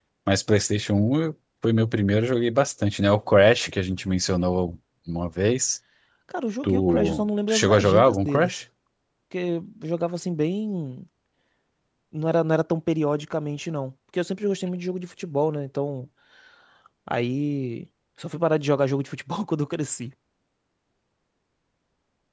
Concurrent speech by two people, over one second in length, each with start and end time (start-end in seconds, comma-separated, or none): 6.6-8.6